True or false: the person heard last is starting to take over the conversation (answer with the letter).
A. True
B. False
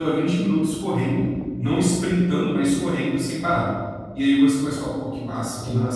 B